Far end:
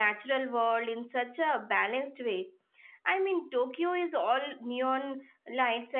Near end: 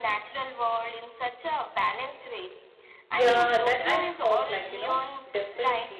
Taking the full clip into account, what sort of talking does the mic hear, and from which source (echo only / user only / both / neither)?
both